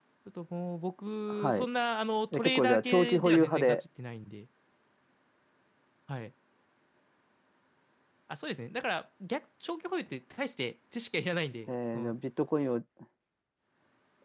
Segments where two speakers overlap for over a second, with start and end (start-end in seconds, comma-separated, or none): 2.3-3.8